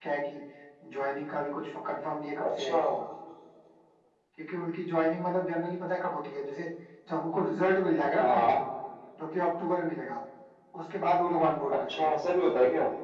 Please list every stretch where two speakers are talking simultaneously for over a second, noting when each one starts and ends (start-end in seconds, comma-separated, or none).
none